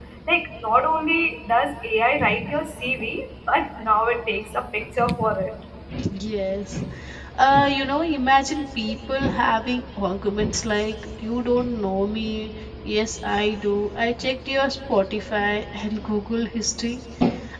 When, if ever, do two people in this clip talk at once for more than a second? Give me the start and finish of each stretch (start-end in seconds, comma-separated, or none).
none